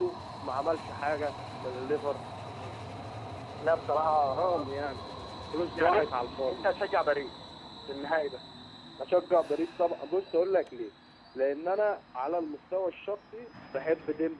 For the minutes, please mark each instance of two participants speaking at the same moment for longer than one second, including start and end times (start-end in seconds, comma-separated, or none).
none